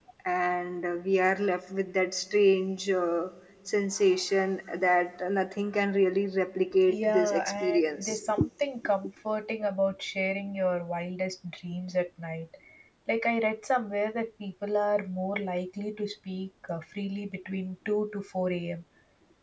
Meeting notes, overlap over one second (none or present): present